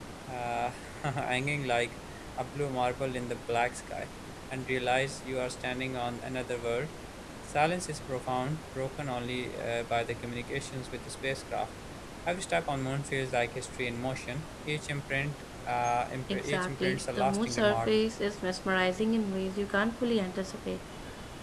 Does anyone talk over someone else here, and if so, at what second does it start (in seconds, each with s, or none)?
16.3 s